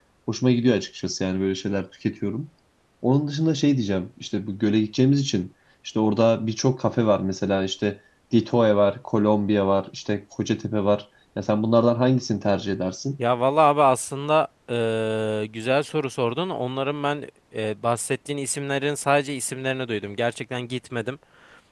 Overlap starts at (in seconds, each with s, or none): none